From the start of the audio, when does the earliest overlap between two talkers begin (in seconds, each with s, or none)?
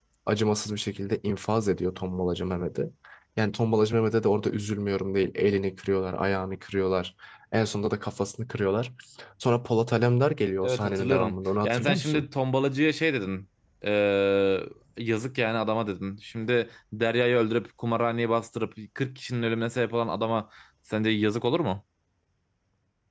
10.6 s